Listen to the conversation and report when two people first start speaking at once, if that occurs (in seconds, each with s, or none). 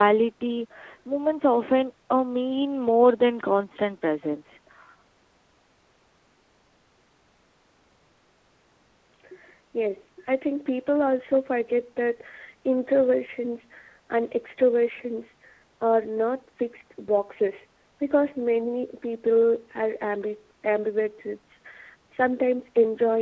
none